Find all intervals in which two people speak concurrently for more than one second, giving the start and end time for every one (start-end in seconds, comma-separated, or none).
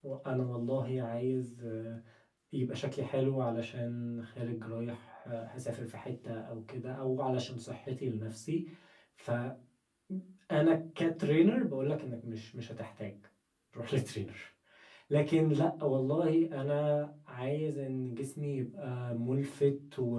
none